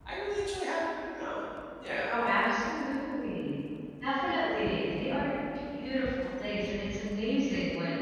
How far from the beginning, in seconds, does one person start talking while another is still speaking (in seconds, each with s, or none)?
none